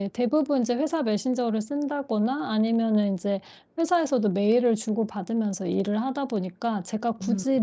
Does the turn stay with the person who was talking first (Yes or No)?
Yes